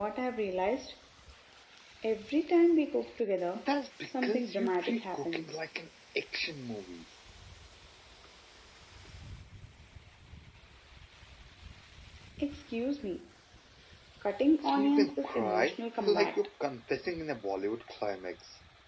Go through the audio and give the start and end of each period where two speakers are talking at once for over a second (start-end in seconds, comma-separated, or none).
4.1-5.6, 14.7-16.4